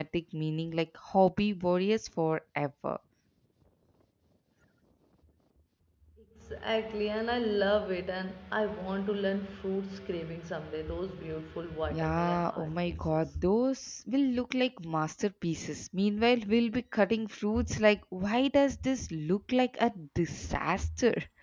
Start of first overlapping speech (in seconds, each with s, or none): 11.8 s